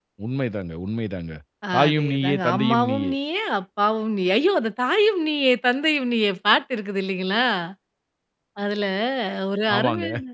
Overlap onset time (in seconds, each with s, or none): 1.8 s